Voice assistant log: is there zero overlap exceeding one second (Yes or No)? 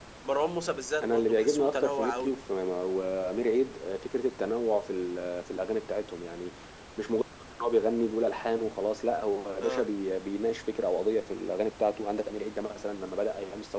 No